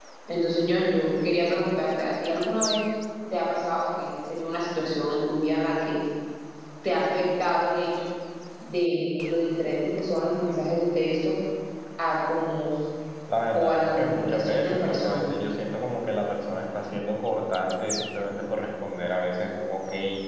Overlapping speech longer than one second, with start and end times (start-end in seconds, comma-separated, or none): 13.5-15.3